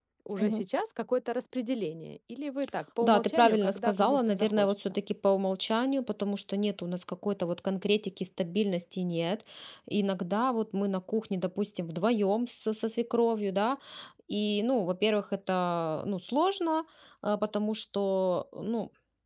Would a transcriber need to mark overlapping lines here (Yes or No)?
Yes